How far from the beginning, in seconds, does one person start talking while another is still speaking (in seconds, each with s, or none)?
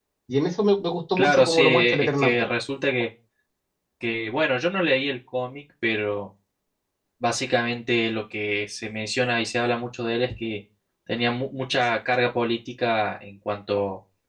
1.2 s